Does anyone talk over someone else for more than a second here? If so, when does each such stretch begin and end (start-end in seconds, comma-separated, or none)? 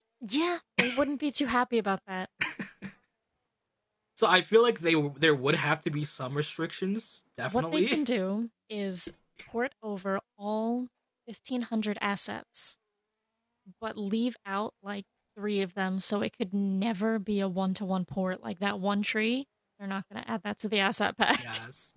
none